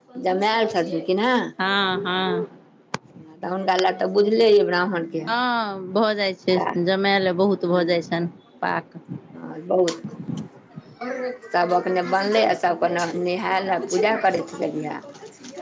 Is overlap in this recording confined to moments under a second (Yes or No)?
Yes